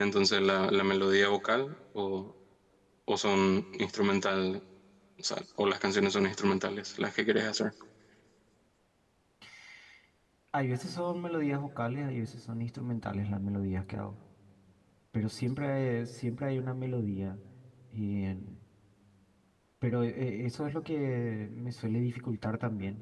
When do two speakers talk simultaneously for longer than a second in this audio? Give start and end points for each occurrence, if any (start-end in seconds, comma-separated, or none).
none